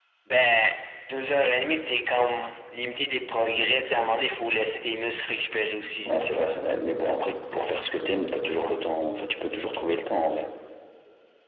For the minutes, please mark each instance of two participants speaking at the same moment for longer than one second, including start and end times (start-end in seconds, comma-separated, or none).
none